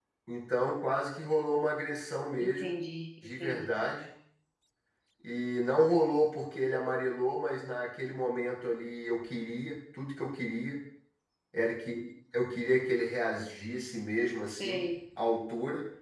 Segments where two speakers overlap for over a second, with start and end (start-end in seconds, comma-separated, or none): none